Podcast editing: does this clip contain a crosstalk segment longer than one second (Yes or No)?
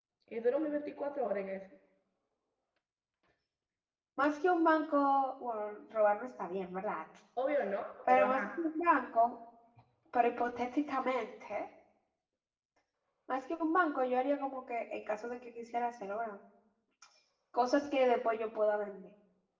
No